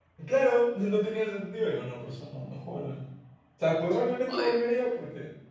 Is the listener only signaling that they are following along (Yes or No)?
Yes